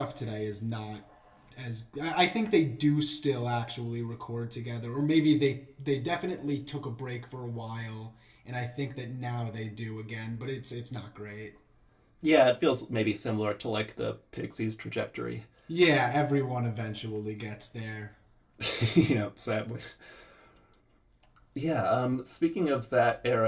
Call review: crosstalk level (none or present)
none